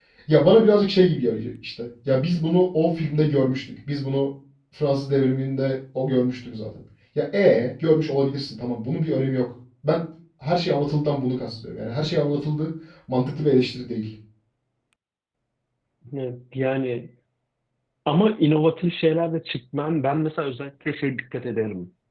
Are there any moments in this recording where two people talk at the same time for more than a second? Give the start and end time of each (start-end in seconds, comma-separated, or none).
none